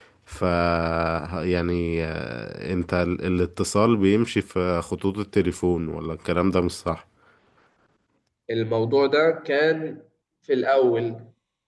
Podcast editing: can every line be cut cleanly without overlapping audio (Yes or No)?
Yes